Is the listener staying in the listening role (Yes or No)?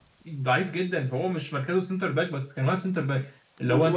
No